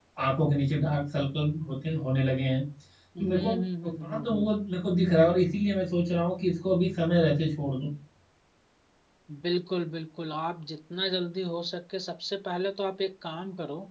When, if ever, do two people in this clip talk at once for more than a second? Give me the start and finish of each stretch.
3.2-4.6

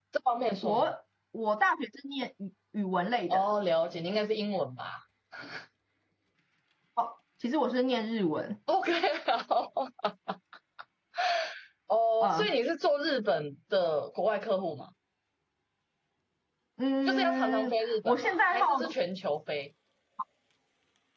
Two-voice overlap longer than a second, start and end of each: 17.1-18.6

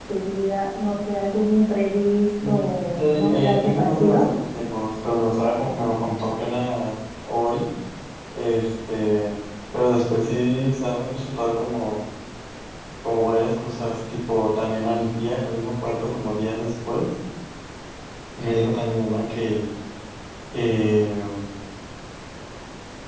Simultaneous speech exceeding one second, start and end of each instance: 3.0-4.2

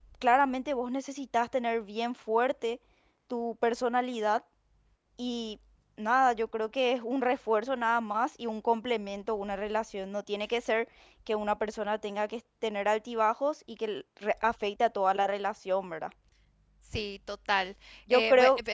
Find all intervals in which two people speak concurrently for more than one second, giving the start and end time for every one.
none

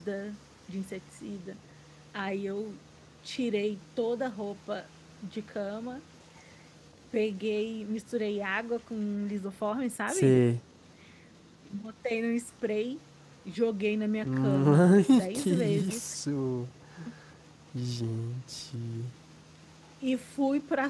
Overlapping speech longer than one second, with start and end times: 14.2-16.0

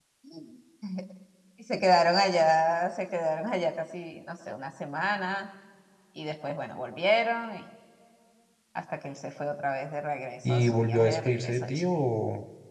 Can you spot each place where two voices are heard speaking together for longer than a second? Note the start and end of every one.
10.4-11.8

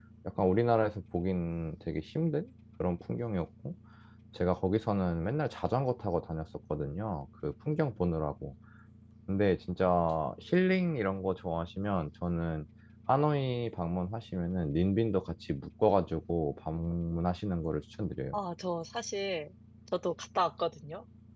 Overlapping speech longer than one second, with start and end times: none

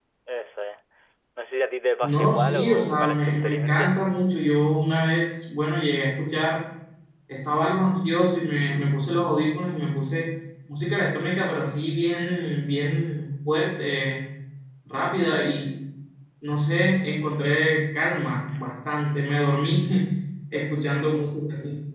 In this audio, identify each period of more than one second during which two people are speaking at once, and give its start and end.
2.0-4.0

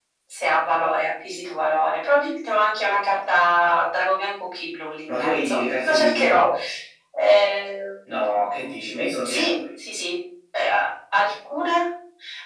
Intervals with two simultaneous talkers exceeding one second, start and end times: 5.1-6.5

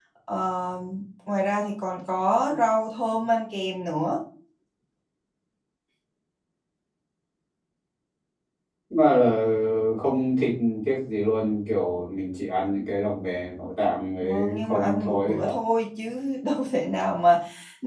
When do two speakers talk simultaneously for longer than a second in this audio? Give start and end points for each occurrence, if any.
14.2-15.4

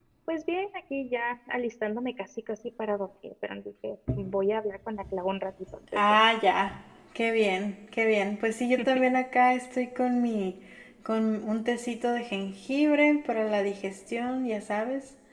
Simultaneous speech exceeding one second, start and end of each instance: none

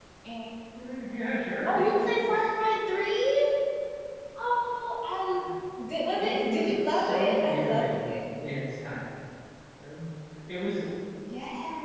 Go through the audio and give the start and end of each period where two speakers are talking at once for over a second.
6.2-8.2

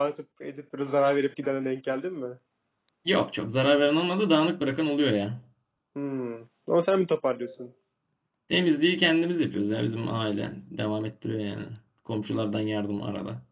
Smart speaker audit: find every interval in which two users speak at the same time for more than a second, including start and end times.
none

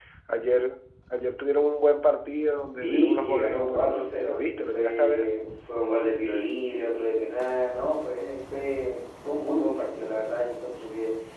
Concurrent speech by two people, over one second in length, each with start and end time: 2.8-5.3

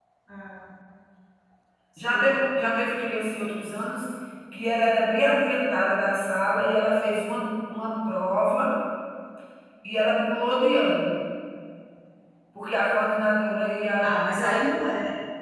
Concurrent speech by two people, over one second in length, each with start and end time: none

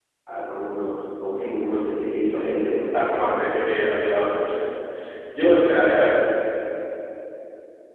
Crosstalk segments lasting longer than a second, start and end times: 2.2-3.4

